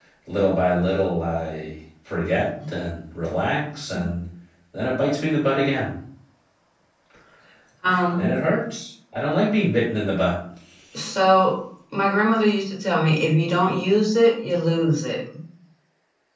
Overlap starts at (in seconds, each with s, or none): none